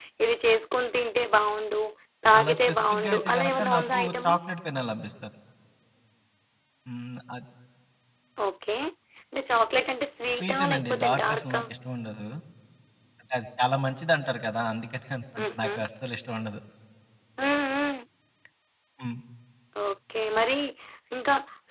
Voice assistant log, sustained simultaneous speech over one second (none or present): present